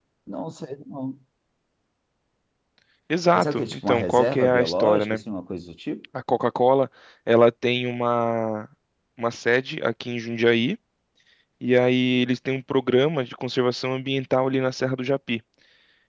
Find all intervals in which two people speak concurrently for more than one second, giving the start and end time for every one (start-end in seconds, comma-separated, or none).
3.4-5.2